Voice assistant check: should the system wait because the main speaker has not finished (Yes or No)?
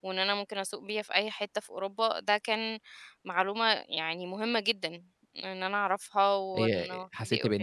No